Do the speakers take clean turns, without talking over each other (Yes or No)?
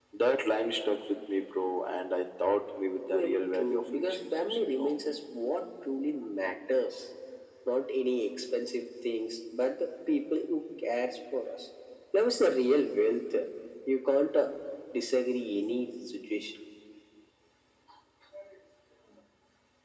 No